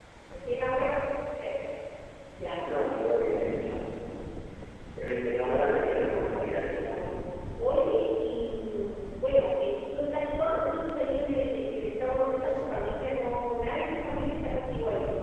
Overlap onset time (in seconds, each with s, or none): 5.4 s